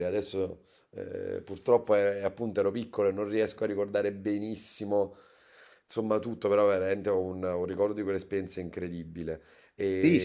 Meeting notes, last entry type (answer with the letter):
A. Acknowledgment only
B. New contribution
B